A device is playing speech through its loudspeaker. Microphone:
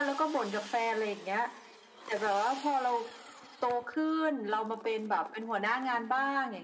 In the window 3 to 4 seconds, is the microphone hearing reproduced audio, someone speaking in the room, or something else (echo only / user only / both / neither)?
echo only